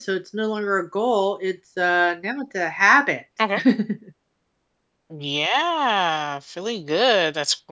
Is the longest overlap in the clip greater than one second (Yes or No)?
No